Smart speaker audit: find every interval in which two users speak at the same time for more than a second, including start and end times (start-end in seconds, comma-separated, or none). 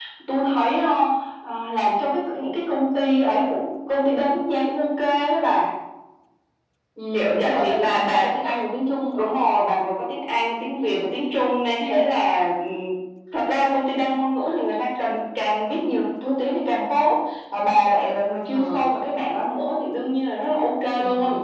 7.1-8.4